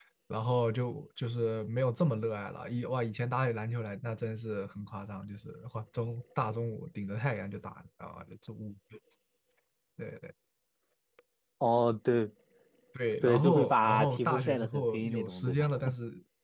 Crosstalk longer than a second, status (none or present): present